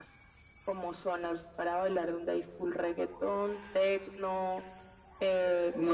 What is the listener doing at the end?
listening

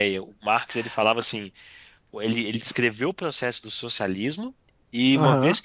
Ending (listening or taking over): taking over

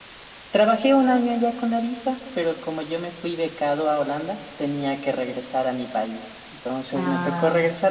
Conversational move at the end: listening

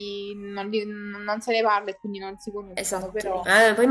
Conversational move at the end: taking over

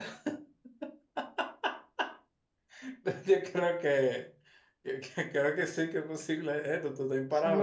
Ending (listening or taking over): taking over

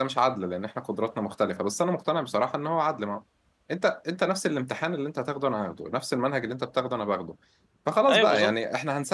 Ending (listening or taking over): listening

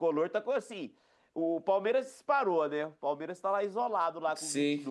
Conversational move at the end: taking over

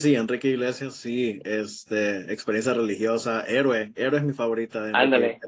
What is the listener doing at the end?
taking over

